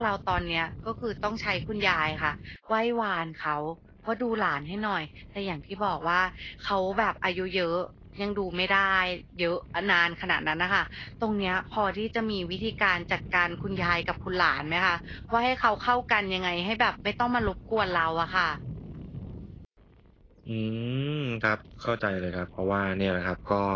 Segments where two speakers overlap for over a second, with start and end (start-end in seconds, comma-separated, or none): none